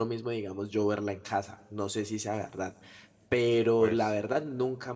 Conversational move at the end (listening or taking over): listening